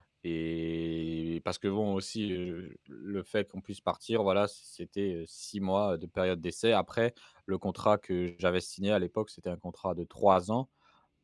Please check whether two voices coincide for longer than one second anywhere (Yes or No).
No